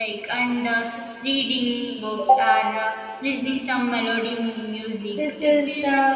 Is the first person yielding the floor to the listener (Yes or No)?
Yes